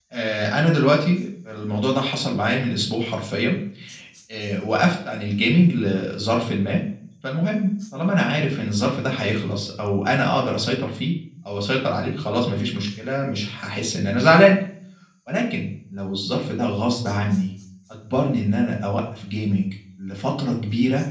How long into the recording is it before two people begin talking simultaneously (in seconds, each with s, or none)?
none